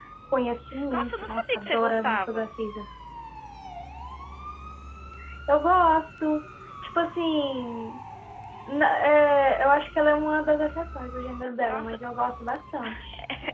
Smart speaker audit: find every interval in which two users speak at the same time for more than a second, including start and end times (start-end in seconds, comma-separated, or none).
0.9-2.4